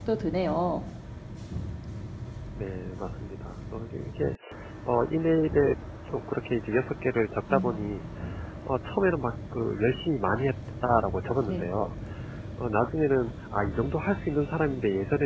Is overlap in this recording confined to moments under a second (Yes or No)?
Yes